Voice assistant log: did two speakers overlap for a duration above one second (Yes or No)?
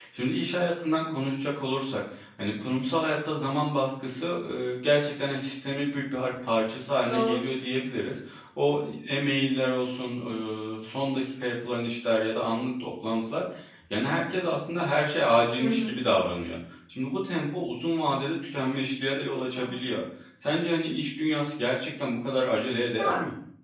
No